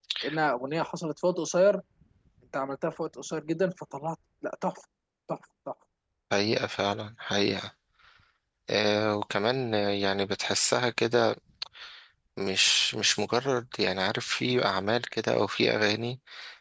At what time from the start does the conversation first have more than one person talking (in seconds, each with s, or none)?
none